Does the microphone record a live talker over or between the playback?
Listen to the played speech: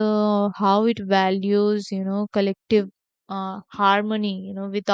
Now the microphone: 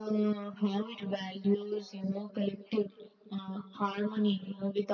No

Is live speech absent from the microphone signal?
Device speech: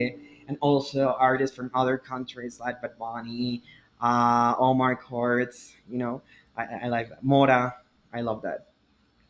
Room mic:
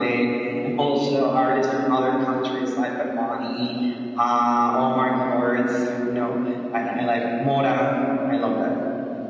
Yes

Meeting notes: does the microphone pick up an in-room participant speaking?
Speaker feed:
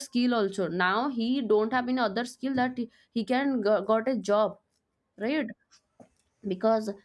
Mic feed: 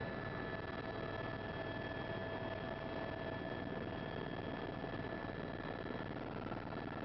No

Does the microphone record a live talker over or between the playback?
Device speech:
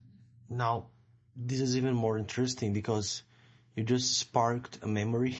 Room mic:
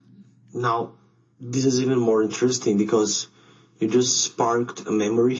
No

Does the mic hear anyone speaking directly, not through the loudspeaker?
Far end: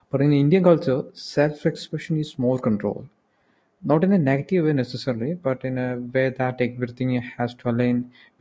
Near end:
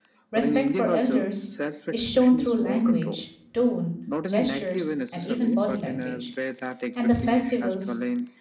Yes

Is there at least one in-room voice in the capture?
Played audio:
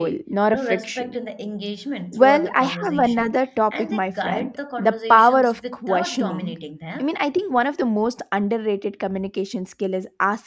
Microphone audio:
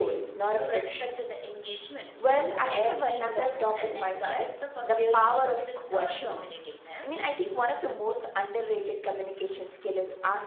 Yes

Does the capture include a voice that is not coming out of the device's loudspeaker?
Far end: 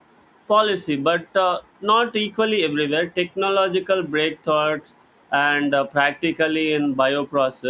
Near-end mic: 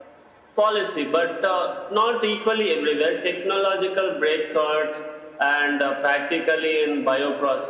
No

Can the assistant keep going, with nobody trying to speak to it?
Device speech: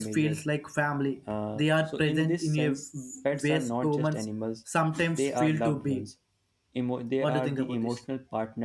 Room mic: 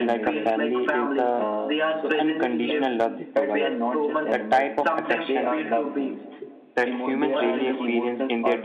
No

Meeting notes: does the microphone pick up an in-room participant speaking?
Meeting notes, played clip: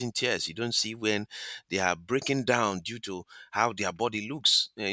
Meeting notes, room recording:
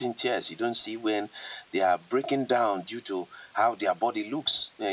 No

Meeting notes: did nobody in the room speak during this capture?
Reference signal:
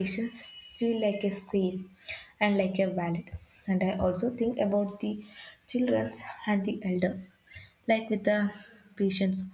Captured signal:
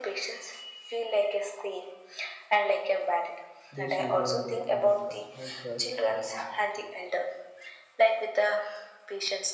No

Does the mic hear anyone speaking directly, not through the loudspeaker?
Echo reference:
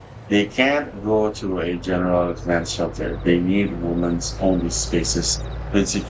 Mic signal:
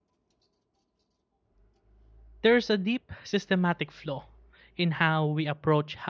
Yes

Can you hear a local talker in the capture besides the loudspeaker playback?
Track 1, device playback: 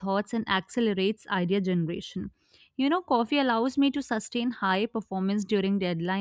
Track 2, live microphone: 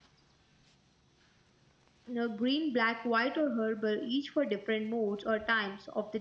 Yes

